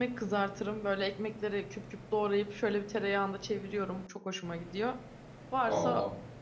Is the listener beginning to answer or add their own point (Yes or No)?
No